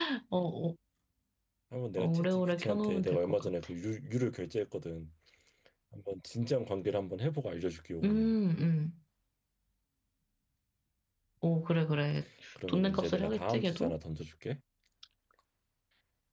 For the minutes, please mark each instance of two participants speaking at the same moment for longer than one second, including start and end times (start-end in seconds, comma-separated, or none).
2.0-3.5, 12.7-14.0